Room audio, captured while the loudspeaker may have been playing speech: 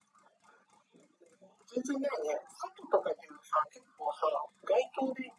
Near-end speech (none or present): none